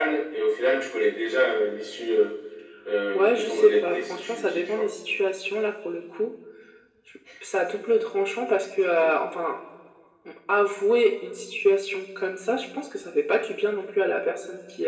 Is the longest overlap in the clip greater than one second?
Yes, from 3.1 s

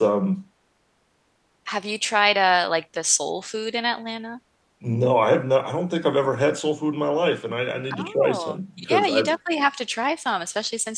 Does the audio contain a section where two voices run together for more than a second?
Yes, from 7.9 s

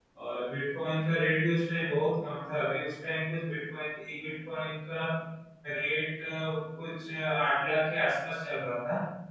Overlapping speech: No

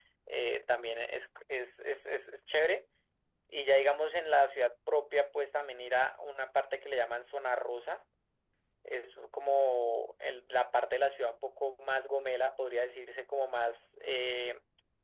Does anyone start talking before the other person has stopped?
No

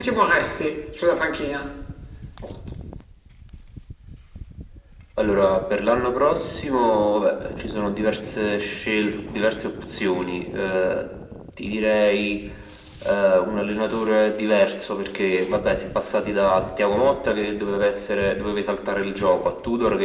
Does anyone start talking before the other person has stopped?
No

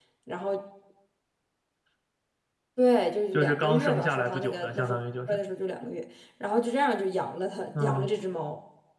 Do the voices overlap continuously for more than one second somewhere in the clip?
Yes, from 3.3 s

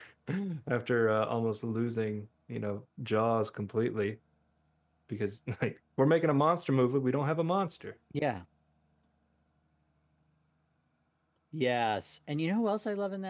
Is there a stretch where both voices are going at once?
No

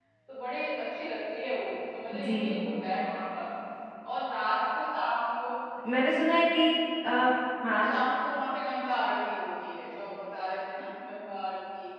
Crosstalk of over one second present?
No

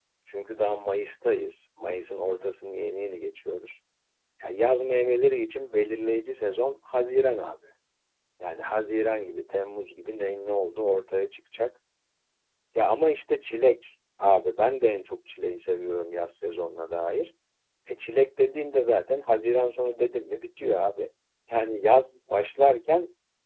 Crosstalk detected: No

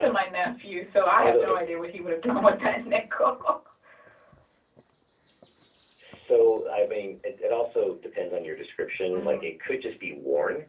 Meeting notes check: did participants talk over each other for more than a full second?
No

